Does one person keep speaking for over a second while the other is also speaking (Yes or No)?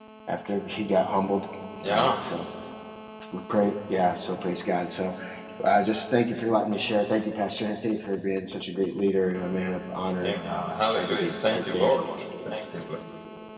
Yes